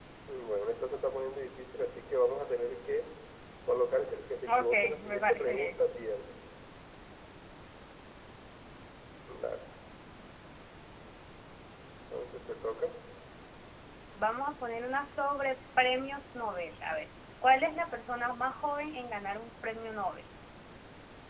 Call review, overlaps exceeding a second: present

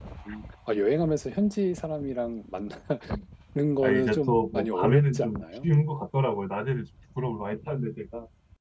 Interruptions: present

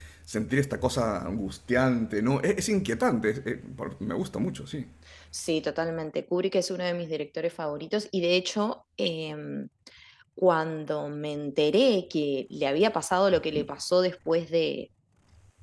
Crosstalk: none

